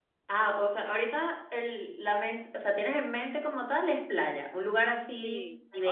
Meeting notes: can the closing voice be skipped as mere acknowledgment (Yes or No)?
No